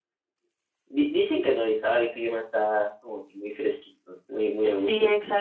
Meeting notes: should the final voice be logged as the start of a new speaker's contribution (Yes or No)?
Yes